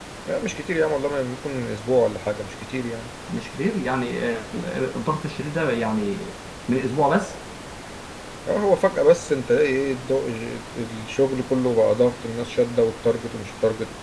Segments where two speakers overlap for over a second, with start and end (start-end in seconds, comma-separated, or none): none